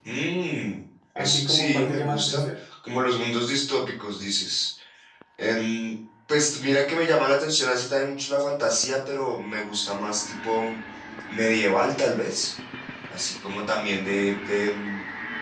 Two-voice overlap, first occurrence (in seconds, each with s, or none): 1.2 s